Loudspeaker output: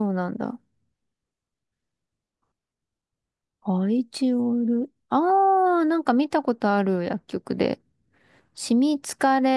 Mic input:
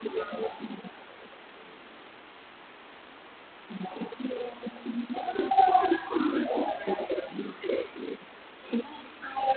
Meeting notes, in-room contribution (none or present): none